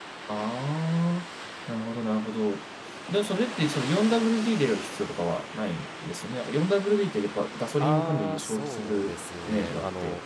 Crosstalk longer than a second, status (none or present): present